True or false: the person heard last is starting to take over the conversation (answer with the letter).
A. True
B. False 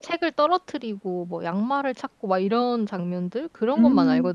A